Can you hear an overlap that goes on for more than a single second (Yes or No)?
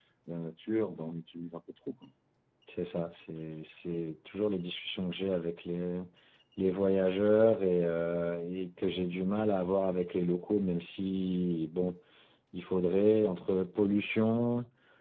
No